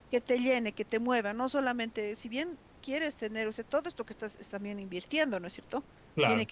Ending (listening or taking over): listening